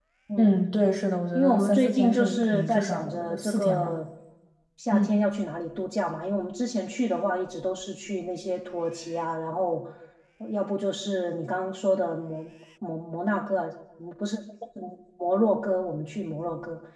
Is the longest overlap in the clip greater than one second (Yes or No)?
Yes